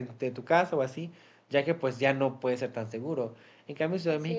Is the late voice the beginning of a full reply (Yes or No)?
No